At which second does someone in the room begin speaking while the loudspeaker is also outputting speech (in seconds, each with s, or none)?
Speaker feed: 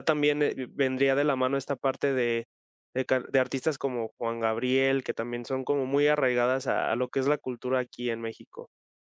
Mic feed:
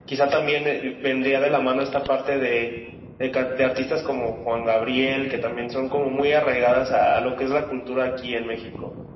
none